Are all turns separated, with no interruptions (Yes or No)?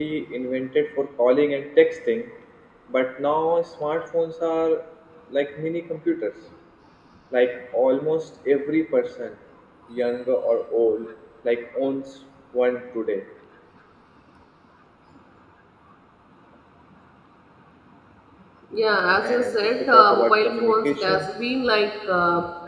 No